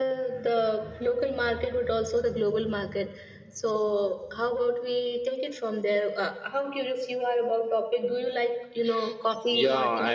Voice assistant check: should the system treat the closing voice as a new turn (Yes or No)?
Yes